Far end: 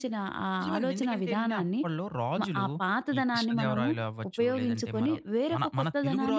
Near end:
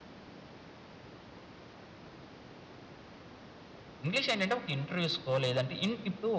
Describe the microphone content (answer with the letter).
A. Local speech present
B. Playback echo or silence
A